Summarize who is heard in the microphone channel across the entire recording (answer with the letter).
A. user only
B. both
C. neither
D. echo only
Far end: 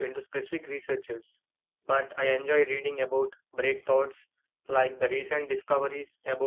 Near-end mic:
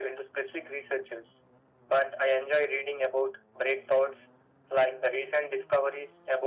D